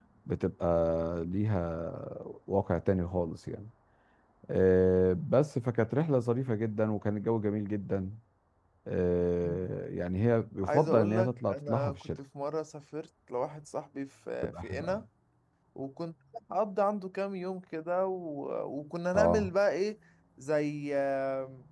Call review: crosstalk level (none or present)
present